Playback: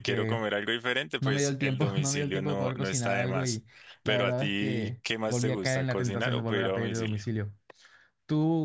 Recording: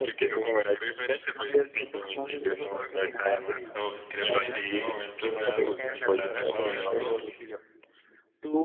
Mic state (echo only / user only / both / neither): both